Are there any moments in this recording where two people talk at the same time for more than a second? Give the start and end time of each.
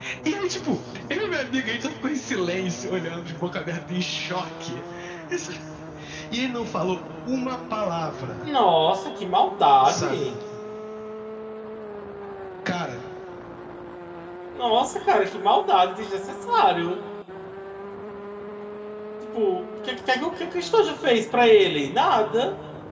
none

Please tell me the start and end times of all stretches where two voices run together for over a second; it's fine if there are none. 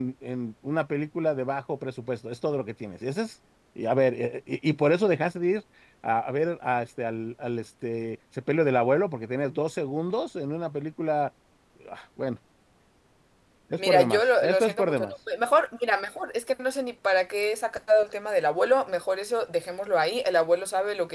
13.8-15.1

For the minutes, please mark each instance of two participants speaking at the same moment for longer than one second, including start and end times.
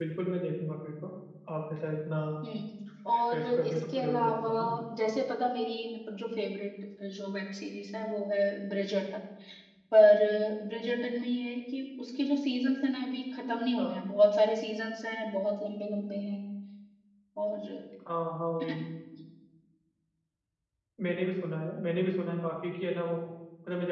3.2-4.5

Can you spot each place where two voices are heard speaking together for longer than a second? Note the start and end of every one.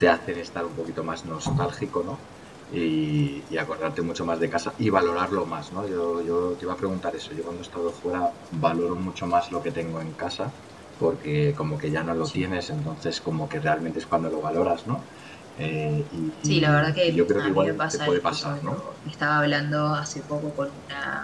16.4-18.8

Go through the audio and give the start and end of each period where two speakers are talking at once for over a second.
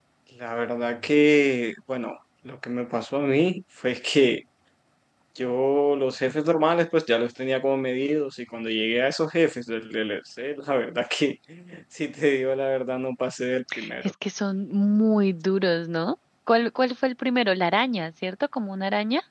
none

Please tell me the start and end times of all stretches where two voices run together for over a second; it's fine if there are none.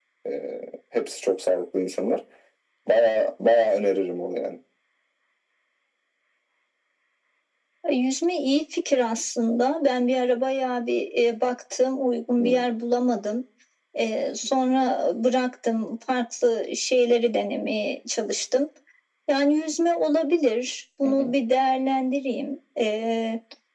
none

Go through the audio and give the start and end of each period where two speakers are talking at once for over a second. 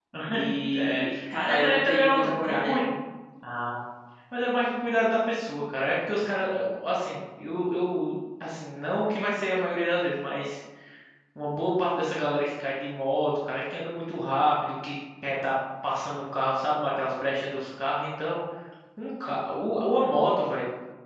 1.4-2.8

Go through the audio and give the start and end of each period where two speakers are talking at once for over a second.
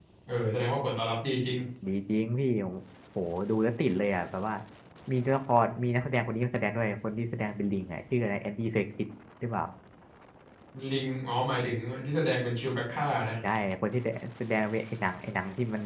none

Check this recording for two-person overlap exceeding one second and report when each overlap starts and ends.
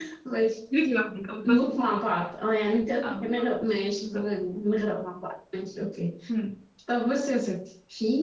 none

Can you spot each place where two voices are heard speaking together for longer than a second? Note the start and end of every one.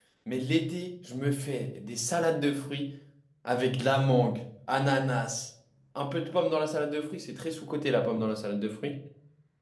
none

